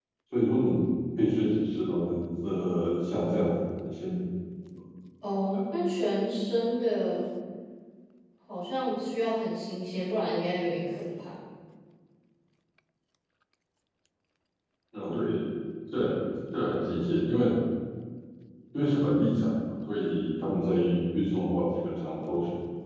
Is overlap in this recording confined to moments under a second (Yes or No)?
Yes